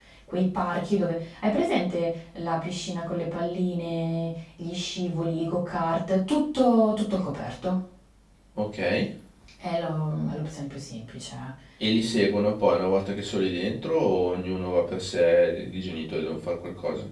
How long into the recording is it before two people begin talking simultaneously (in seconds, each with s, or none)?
none